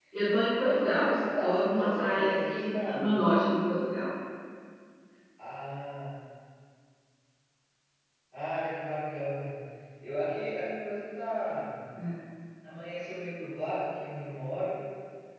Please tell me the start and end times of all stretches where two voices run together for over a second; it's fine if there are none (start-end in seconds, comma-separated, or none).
0.6-3.2